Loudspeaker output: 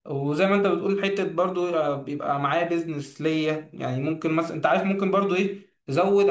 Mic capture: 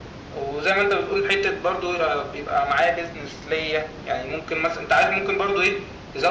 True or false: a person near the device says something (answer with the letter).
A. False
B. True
A